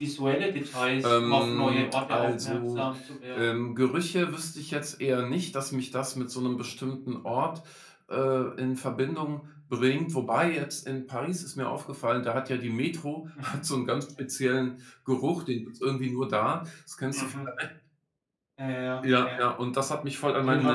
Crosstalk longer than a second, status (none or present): present